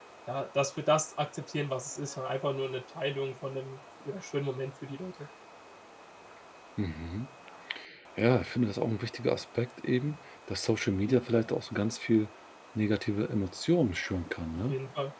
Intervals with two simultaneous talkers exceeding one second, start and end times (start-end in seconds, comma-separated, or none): none